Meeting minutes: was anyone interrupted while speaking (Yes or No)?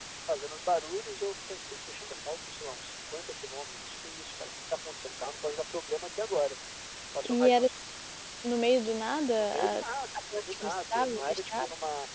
Yes